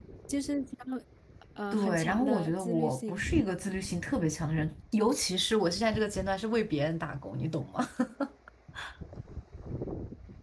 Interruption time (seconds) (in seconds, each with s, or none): 1.7 s